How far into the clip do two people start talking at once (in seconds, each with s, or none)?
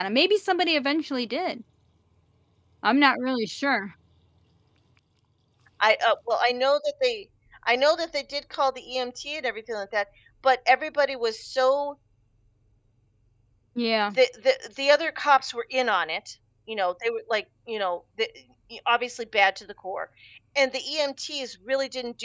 none